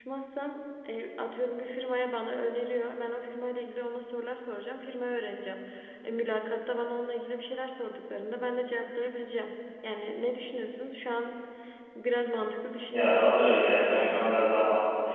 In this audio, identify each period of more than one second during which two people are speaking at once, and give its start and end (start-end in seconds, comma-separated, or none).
12.9-14.2